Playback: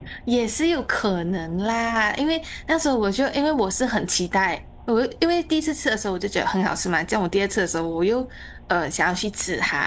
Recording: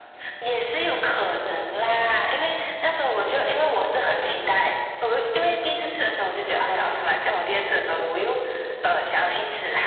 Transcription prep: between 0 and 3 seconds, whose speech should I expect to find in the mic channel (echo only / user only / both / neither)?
echo only